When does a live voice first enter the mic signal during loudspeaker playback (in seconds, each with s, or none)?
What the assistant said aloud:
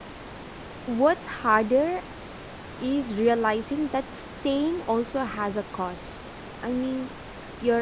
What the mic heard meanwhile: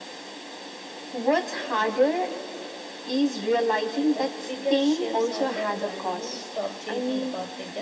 4.1 s